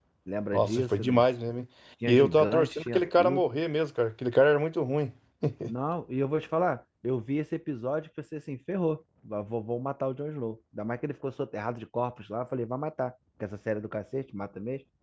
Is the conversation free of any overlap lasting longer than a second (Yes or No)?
No